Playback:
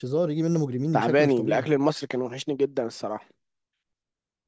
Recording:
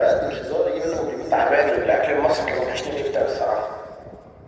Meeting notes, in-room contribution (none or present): none